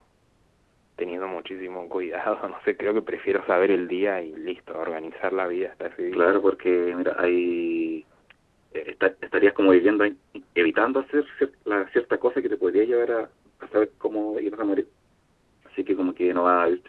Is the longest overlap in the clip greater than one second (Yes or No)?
No